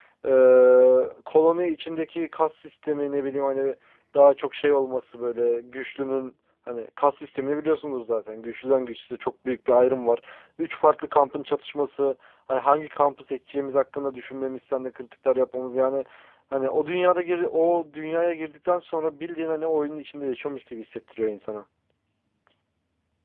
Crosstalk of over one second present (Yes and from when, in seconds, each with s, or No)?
No